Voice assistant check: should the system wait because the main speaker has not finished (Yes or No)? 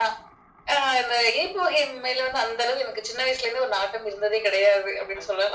No